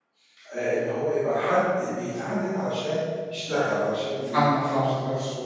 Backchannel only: Yes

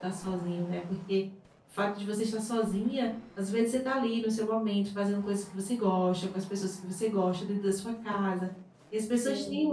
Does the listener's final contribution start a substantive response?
No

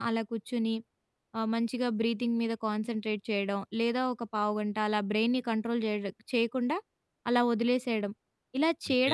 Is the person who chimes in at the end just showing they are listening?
Yes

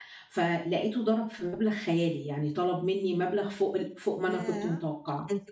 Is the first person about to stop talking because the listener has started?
Yes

